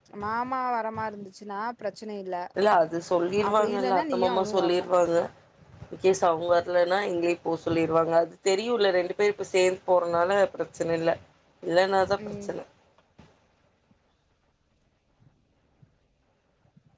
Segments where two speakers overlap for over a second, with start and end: 3.5-4.9

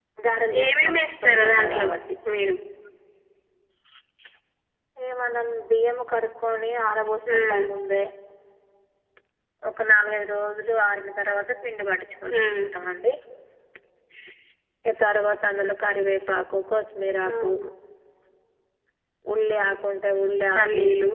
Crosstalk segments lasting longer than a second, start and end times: 0.6-1.9

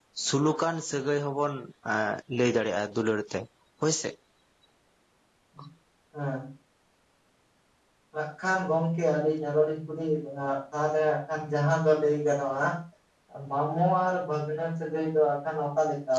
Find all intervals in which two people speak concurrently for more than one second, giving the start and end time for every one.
none

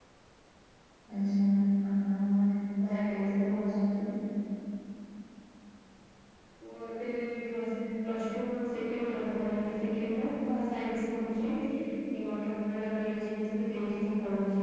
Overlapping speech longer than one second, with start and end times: none

